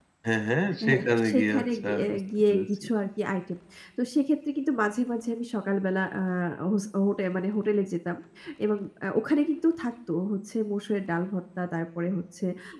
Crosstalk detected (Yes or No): Yes